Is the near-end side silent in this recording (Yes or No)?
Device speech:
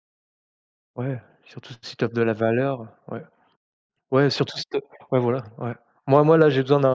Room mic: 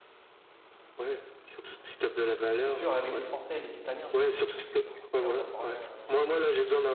No